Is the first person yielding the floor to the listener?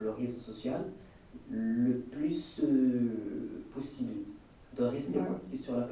No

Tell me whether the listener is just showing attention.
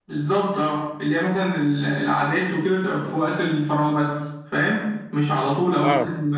Yes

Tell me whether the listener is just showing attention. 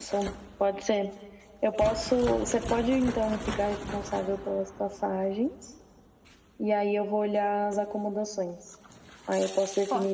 Yes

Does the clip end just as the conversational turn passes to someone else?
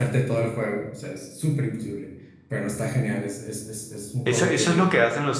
Yes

